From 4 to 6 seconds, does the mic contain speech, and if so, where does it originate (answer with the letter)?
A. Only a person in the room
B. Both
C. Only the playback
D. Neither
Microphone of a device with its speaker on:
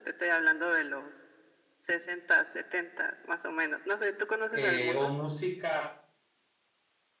B